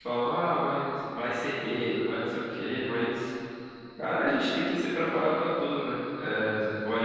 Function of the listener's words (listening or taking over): listening